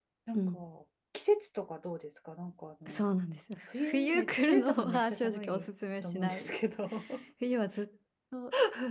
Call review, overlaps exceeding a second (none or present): present